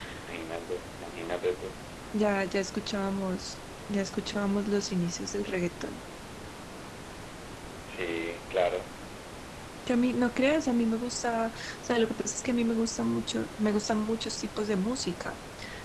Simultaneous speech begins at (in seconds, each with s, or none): none